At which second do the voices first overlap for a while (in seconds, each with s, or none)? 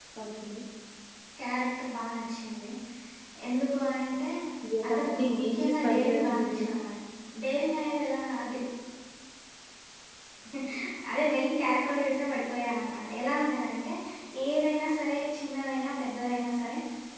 4.9 s